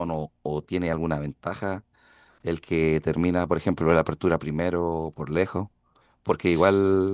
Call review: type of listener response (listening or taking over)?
listening